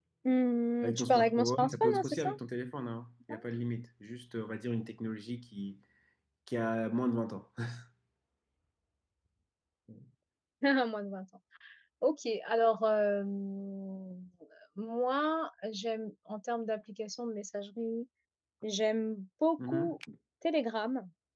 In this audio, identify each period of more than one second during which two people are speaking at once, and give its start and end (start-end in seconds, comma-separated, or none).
0.8-2.3